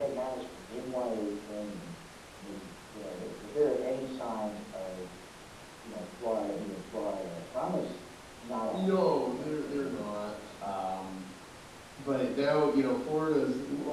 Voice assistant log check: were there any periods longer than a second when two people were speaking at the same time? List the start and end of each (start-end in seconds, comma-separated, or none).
8.7-10.5